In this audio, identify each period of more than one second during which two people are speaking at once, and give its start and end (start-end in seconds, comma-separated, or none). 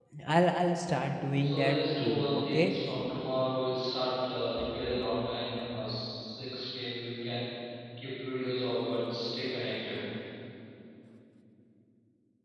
1.4-2.7